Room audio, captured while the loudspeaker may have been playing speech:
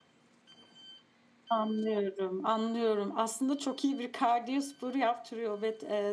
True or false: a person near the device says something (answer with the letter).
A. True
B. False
A